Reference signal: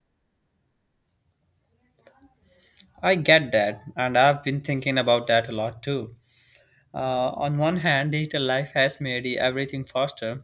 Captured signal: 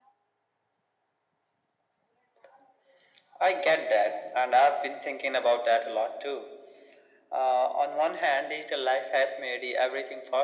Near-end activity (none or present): none